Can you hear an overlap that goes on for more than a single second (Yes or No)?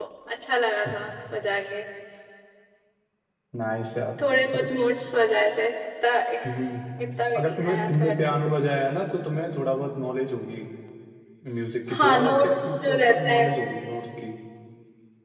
Yes